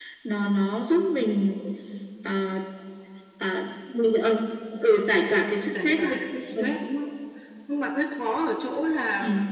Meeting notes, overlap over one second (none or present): none